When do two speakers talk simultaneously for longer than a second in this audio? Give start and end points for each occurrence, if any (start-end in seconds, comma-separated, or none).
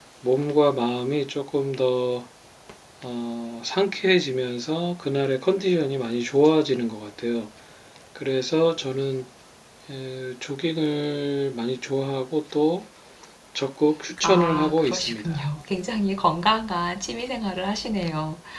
14.2-15.5